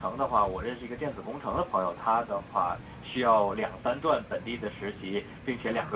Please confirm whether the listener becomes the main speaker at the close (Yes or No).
No